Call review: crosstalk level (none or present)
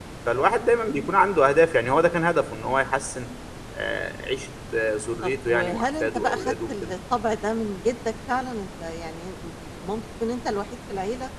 present